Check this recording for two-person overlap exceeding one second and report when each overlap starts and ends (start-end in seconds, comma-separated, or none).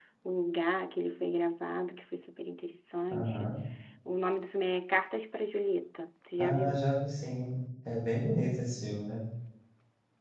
none